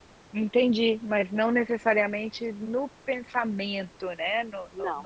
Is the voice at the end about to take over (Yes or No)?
Yes